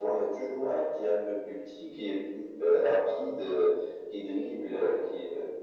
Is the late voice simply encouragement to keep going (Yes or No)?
Yes